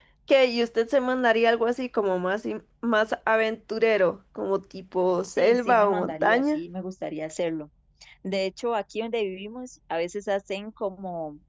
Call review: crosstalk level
present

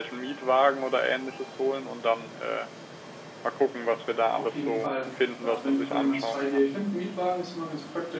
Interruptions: present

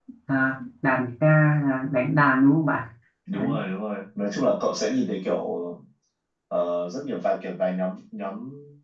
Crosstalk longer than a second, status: none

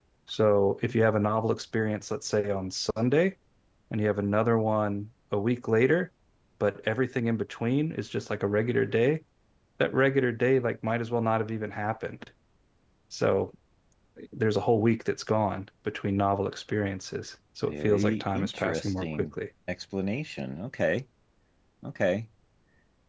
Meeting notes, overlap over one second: present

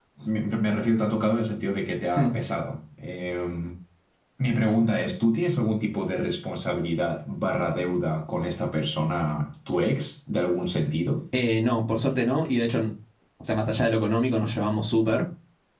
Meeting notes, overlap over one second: none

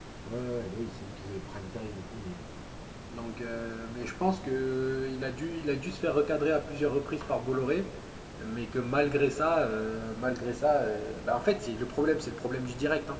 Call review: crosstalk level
none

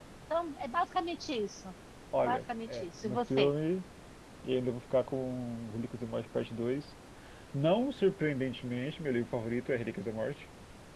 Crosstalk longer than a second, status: present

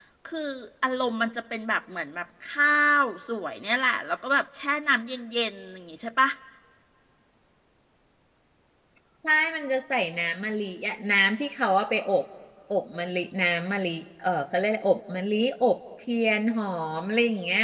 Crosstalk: none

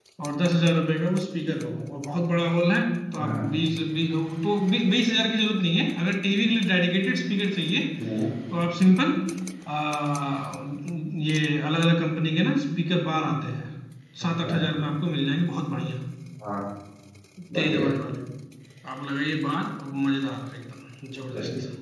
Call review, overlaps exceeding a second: none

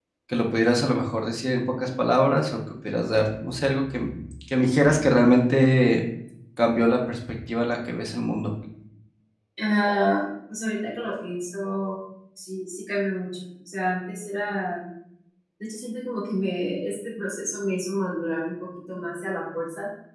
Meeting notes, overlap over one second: none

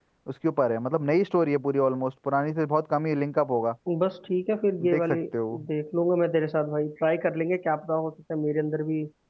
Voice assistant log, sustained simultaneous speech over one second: none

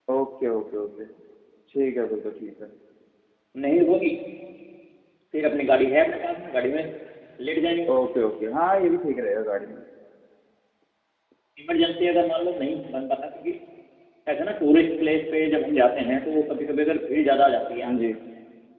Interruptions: none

